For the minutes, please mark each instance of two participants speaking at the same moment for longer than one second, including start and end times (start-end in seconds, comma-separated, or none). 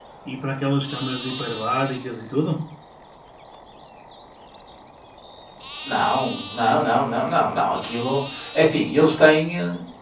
none